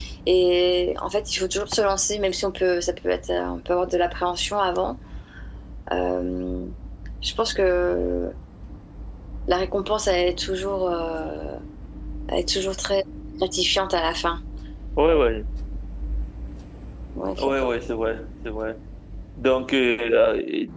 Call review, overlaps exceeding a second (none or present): none